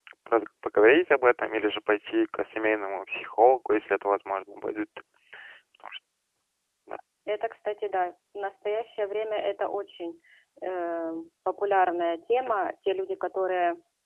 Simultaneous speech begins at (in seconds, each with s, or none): none